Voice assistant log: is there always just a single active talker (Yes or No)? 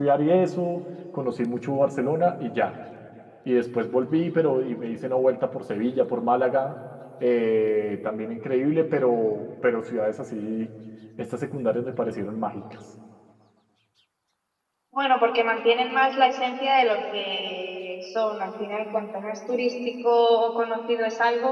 Yes